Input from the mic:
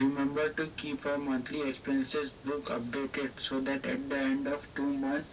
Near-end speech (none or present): none